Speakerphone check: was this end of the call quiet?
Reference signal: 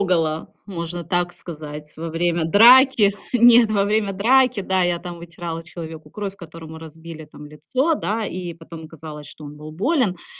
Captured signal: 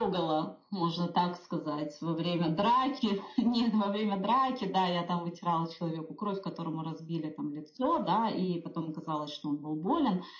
Yes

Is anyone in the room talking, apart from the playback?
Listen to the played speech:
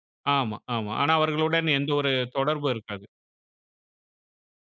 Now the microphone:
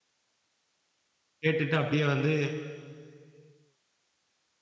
Yes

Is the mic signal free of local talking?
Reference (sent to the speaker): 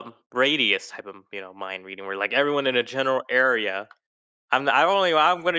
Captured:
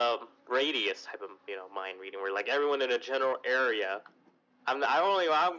Yes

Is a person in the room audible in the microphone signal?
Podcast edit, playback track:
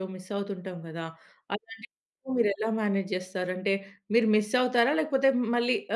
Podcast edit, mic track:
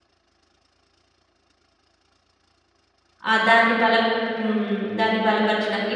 Yes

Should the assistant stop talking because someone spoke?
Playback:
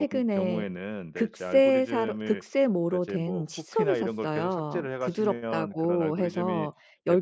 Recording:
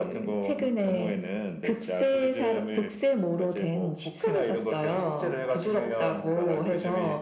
No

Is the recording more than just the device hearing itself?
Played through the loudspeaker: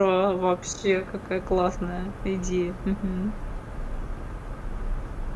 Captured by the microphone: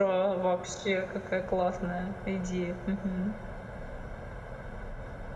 No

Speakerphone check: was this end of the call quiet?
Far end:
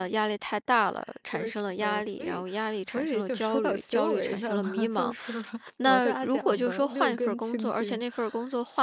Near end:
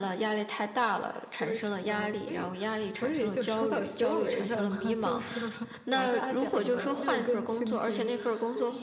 No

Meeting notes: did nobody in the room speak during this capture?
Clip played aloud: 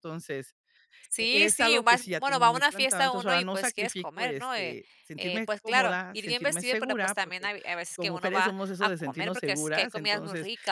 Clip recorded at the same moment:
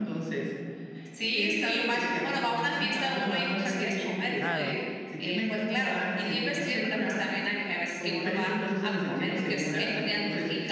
No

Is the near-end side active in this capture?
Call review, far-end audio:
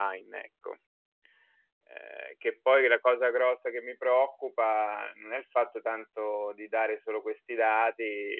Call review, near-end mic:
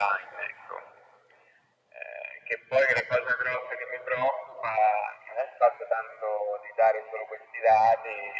No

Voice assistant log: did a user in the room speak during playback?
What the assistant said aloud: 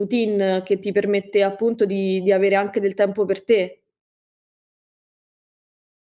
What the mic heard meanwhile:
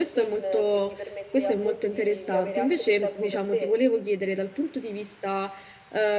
Yes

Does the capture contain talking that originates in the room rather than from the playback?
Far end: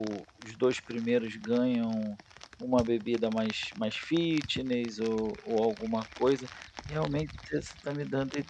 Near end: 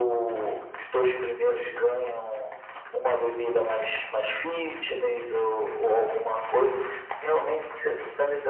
No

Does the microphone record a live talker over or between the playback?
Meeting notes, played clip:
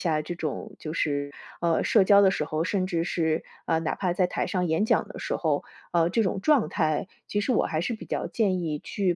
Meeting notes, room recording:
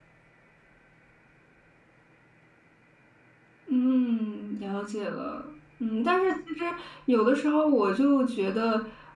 Yes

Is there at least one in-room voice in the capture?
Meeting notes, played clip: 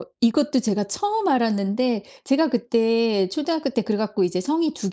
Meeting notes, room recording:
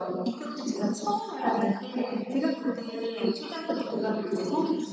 No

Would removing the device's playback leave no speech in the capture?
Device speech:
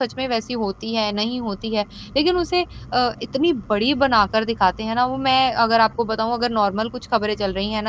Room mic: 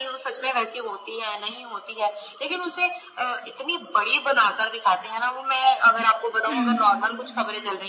No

